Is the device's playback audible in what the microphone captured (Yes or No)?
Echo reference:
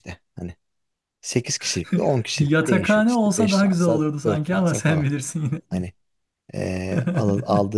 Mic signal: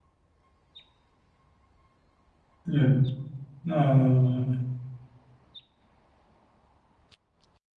No